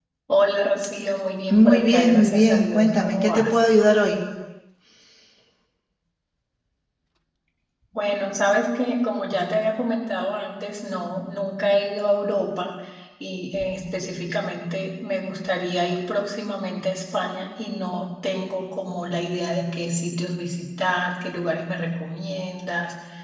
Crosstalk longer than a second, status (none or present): present